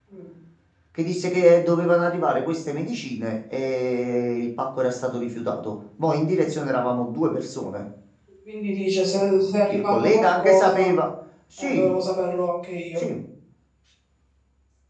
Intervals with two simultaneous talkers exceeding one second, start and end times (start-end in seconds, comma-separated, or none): 9.7-10.9